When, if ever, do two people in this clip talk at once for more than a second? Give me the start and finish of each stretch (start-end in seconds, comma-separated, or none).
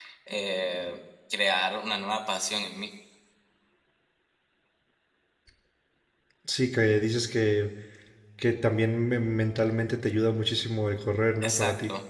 none